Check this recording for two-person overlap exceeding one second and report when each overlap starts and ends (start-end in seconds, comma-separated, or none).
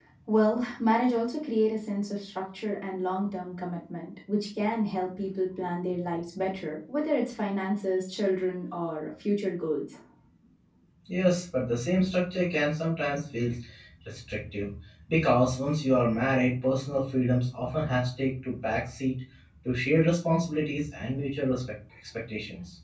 none